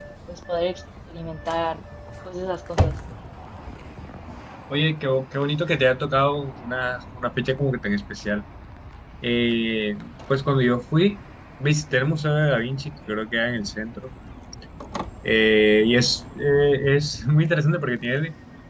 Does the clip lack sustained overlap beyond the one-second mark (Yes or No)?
Yes